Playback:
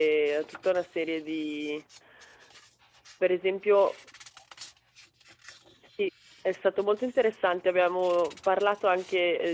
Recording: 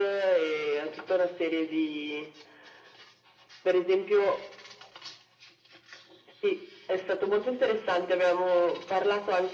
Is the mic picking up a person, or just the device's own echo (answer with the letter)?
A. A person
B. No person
B